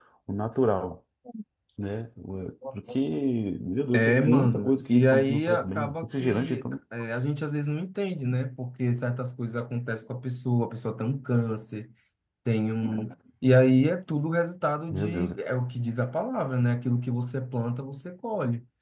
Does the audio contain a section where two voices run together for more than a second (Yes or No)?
Yes